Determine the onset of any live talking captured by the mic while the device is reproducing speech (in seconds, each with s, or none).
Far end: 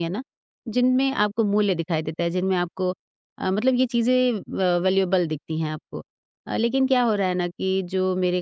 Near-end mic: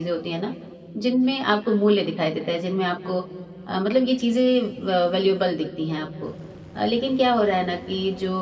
none